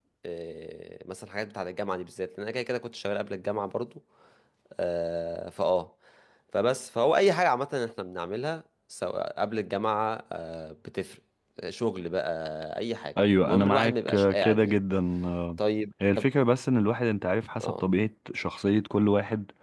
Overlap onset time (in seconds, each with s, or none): 13.5 s